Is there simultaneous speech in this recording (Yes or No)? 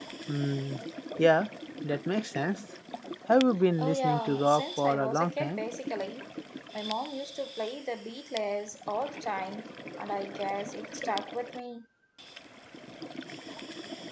Yes